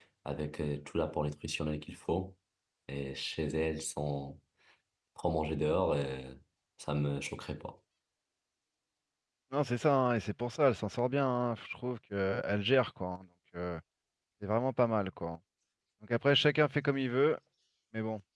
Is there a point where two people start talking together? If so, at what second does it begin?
none

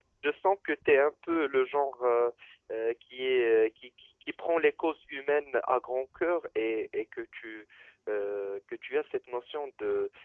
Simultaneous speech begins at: none

